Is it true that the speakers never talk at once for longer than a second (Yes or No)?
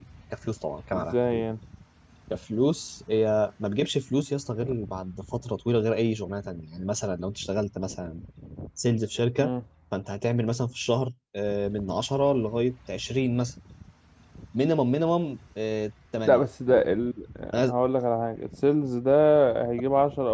Yes